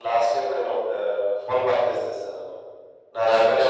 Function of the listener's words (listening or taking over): listening